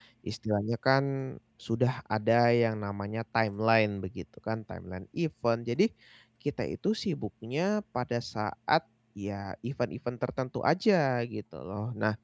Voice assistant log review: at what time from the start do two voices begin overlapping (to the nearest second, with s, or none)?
none